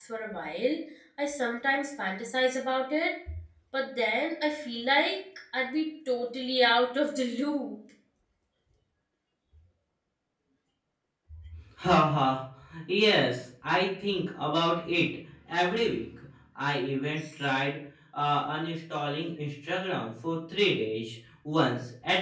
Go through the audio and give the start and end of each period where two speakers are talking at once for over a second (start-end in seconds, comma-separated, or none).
none